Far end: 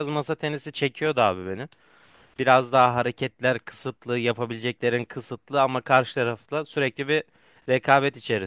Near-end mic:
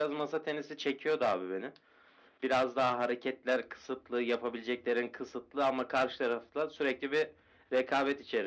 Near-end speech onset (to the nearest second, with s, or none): none